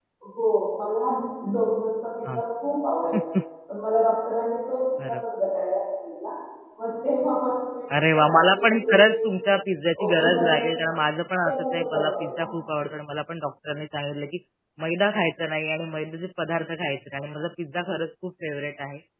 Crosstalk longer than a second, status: present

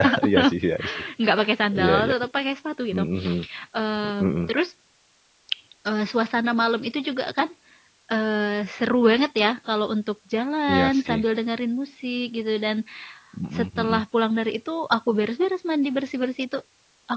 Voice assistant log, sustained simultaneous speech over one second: none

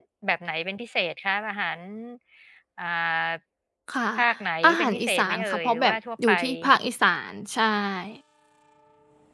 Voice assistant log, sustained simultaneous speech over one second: present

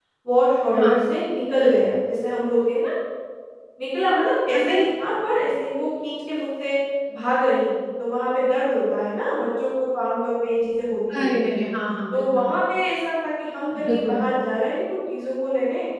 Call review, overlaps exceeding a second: none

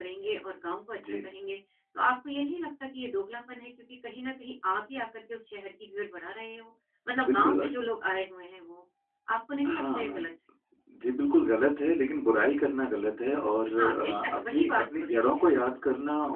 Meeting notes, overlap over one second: present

